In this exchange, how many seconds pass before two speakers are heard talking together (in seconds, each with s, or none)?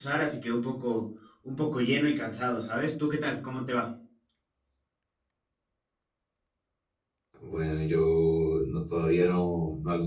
none